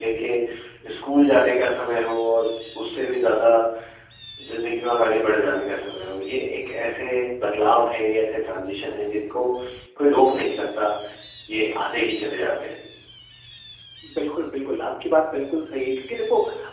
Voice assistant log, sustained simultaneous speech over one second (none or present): none